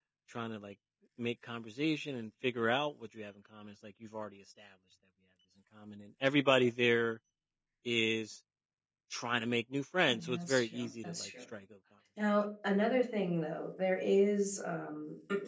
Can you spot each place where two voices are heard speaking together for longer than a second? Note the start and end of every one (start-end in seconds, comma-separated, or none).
10.1-11.3